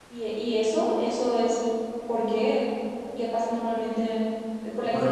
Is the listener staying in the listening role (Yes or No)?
No